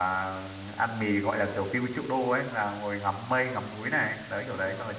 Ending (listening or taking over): taking over